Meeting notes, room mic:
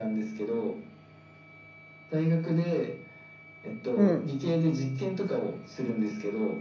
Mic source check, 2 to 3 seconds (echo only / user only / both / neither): echo only